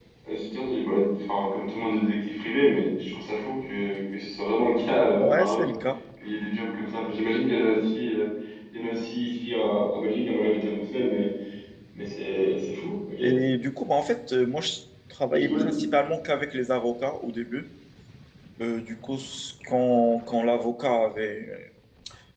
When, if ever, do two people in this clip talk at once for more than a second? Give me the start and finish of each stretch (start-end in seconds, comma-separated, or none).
none